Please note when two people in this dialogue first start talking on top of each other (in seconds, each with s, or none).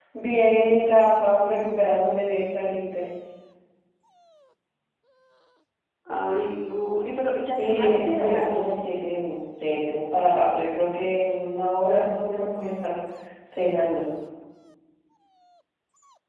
7.6 s